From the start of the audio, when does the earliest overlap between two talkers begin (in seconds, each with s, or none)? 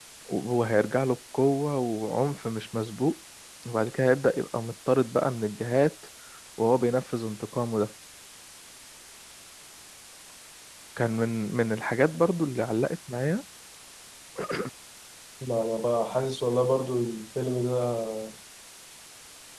none